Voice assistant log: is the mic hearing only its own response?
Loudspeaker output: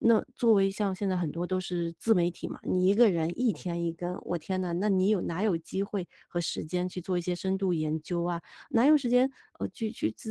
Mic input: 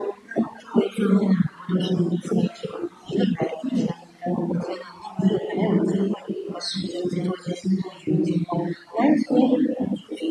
Yes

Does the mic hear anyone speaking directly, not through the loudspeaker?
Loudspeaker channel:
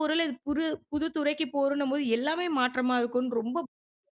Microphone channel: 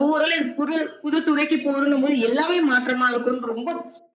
No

